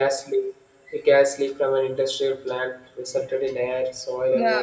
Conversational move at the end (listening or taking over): listening